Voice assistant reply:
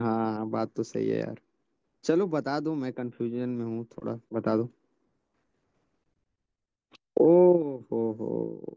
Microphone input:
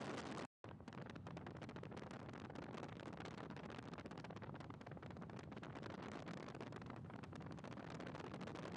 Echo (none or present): none